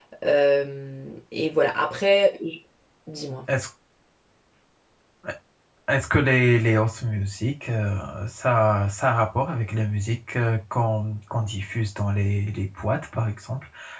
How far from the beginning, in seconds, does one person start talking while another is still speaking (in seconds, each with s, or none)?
none